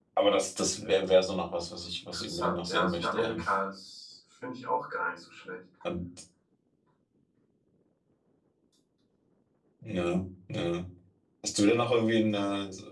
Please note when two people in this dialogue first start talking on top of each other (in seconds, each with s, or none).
2.1 s